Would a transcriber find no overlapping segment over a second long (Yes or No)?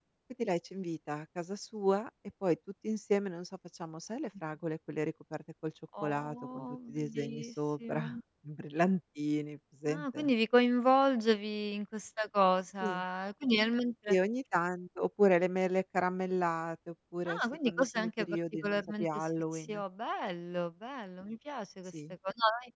No